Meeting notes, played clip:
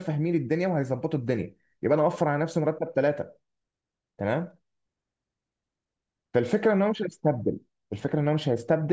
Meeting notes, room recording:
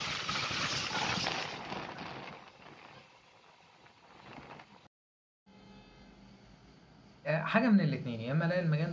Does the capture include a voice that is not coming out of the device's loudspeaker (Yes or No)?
Yes